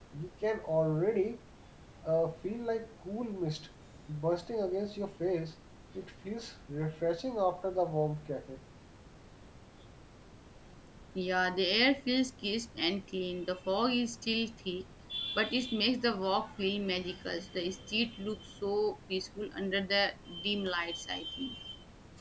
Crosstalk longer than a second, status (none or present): none